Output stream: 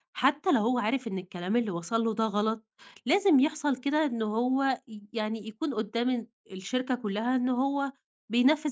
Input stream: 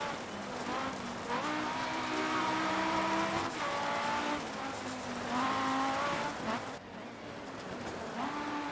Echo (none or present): none